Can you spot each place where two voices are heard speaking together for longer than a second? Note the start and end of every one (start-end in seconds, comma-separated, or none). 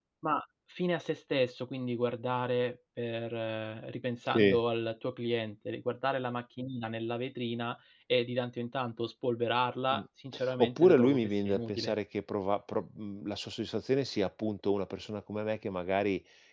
10.6-11.9